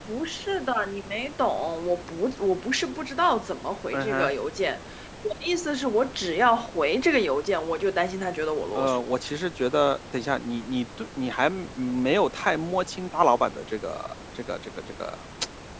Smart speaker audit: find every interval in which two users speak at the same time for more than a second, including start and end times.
none

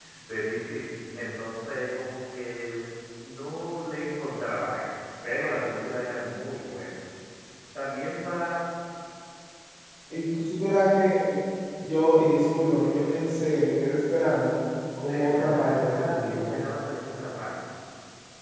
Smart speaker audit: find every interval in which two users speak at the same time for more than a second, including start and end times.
15.1-16.6

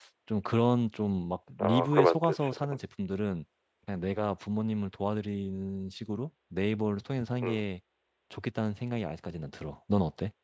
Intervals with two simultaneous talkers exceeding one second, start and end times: 1.6-2.8

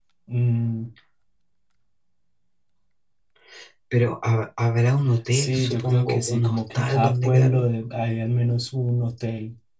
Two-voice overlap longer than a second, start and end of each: 5.3-7.7

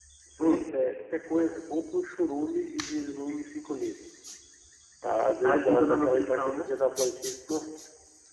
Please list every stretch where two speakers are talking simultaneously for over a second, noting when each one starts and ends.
5.4-6.7

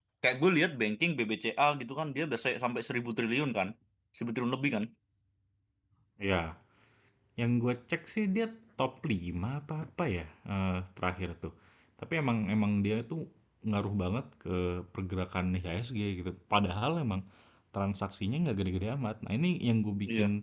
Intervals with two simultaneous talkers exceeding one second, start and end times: none

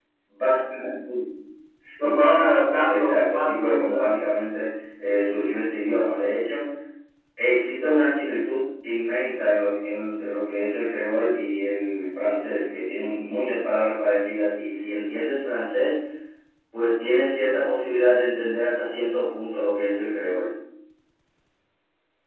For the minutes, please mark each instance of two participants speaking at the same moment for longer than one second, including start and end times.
2.9-4.1

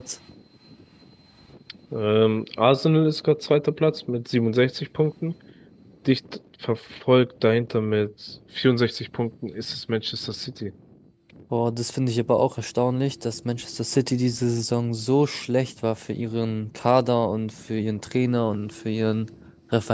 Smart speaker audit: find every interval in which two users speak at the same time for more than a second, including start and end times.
none

